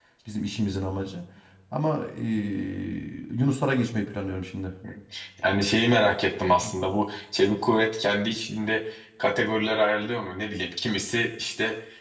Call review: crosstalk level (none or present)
none